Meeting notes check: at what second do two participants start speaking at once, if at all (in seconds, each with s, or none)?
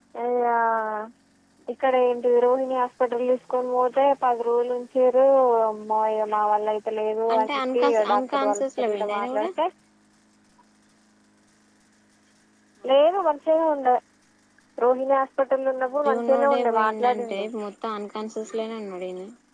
7.3 s